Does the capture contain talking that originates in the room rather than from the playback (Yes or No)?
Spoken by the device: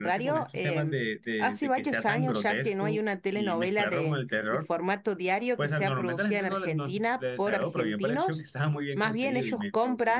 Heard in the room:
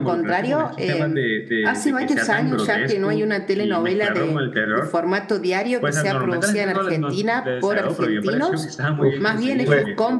Yes